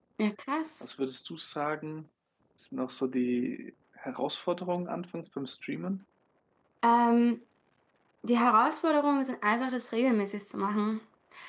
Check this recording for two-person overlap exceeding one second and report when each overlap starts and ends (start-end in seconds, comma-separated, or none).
none